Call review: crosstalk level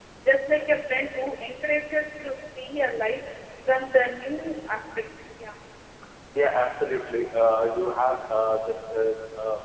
none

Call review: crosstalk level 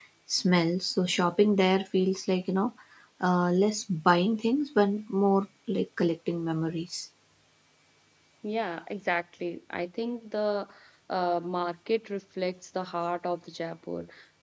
none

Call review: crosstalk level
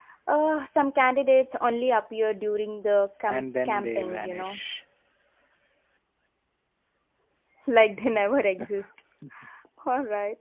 present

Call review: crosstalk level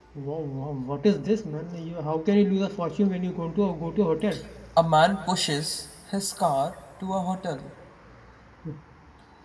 none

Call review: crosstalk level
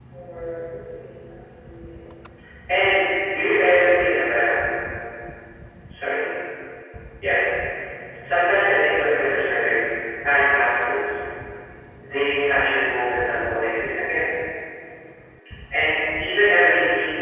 none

